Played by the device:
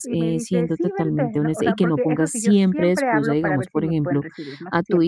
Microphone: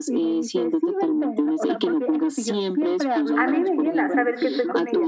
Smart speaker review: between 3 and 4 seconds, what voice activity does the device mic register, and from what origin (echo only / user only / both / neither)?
both